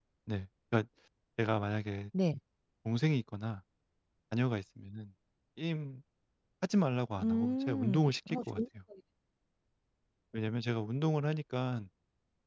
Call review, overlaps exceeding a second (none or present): present